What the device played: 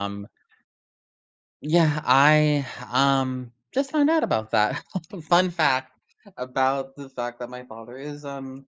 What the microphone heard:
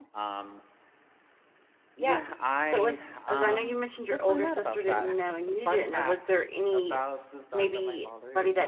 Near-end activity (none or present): present